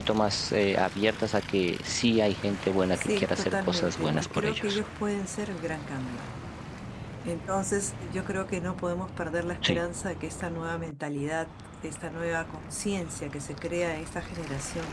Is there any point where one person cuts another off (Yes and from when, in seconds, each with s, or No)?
Yes, from 3.0 s